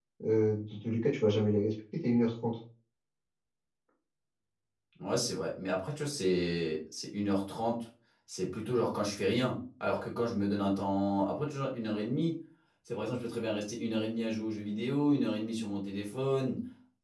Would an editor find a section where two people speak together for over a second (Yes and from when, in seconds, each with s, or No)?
No